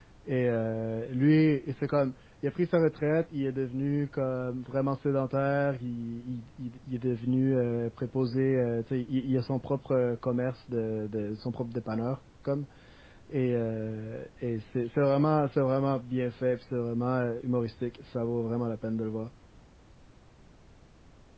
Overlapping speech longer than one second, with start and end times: none

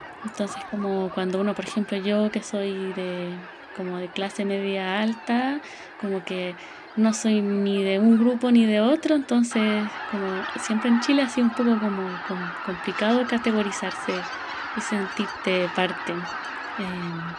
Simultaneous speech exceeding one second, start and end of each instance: none

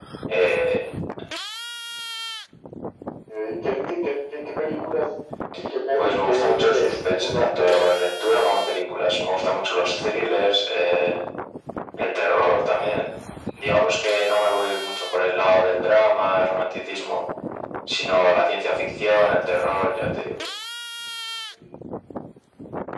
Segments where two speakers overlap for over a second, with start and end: 6.0-7.9

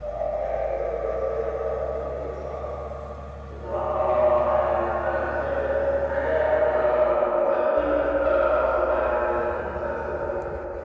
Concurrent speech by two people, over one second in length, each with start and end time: none

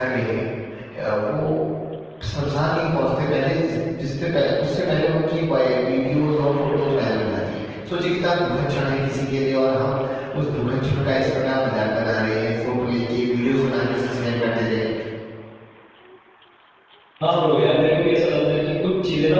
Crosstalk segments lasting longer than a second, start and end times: none

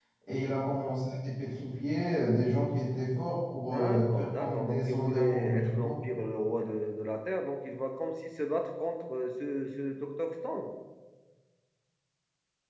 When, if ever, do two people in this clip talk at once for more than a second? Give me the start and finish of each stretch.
3.7-5.9

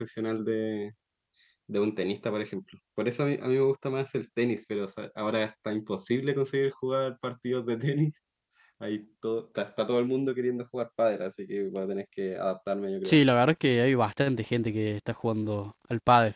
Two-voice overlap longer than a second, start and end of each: none

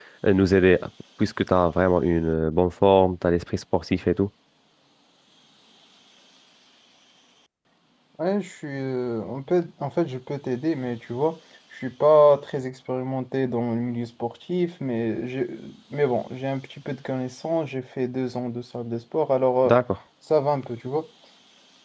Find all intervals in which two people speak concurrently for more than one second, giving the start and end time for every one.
none

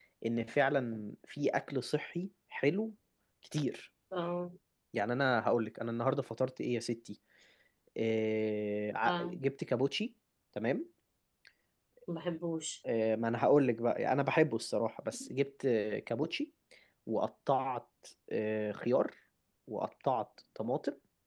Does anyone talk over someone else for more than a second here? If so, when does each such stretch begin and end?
none

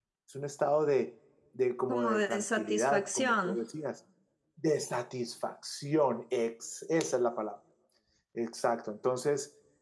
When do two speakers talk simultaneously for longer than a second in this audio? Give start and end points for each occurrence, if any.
1.9-3.6

